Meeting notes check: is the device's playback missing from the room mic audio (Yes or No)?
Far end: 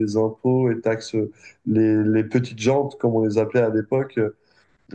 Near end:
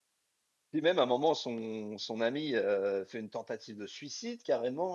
Yes